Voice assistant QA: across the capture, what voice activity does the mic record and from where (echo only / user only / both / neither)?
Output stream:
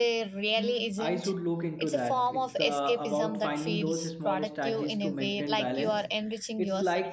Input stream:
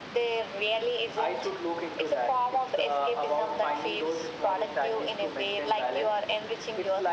echo only